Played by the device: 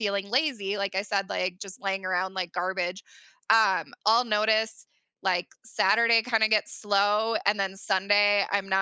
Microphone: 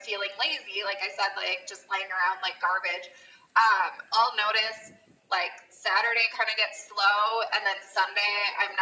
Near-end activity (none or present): none